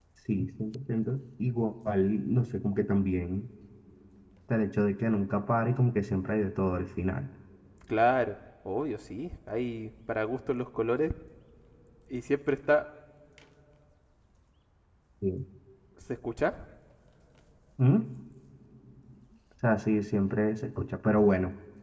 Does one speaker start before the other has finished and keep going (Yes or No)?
No